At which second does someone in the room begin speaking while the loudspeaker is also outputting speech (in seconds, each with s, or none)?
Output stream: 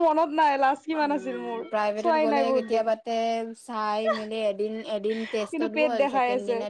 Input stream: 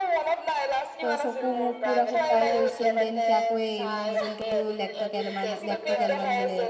1.0 s